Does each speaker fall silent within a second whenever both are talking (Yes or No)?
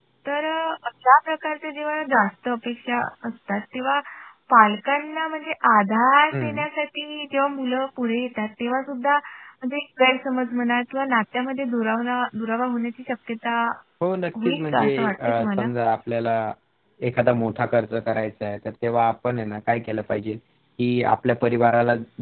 No